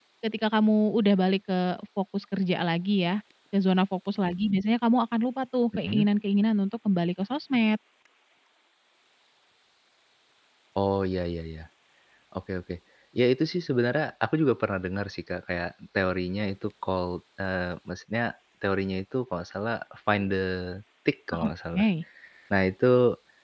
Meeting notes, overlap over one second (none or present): none